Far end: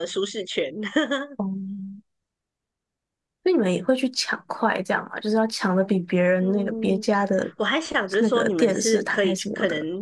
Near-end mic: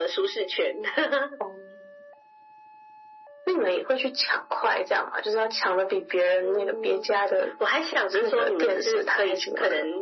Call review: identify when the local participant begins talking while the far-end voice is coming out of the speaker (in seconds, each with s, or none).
none